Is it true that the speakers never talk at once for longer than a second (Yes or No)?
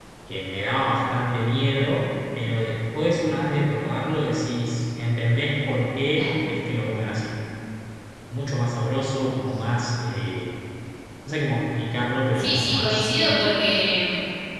No